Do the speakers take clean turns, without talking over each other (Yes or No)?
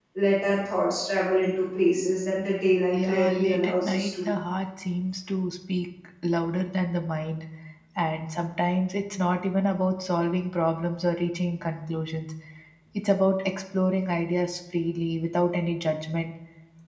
No